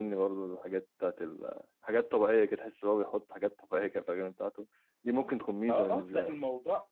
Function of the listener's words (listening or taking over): taking over